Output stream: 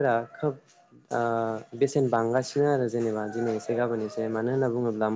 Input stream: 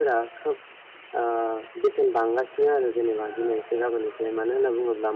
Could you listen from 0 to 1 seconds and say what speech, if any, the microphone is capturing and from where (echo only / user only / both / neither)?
echo only